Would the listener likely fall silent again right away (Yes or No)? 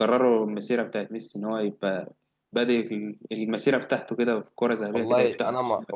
No